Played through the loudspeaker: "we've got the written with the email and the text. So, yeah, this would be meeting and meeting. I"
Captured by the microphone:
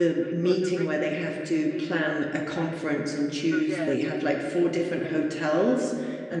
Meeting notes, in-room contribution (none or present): present